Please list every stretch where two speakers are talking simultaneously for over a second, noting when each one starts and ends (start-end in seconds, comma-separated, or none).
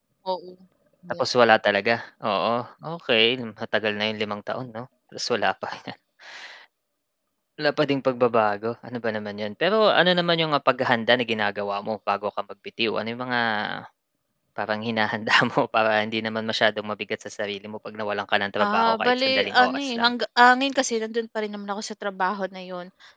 18.6-20.1